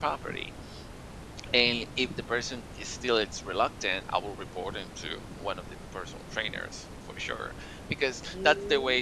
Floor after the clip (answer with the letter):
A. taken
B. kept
B